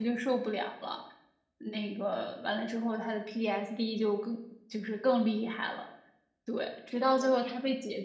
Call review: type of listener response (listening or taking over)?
listening